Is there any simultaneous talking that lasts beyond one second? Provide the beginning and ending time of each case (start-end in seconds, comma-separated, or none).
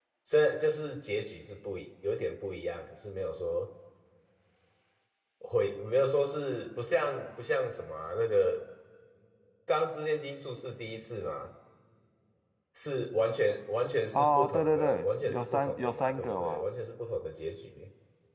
14.1-16.6